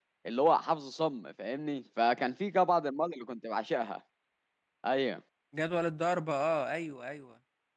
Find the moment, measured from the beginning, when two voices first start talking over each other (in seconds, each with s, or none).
none